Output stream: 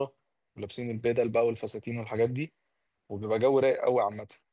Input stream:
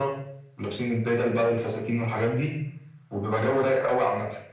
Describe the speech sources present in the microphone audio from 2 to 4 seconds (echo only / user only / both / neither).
echo only